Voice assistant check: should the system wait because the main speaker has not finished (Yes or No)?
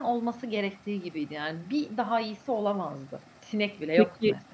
No